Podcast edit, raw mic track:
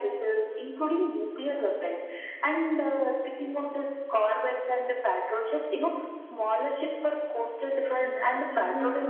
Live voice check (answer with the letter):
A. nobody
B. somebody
B